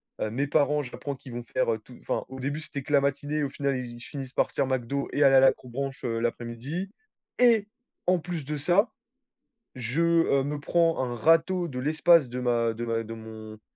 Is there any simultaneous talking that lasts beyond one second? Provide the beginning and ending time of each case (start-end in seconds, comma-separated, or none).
none